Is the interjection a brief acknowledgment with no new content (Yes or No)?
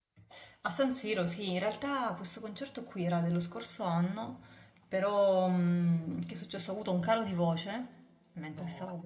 Yes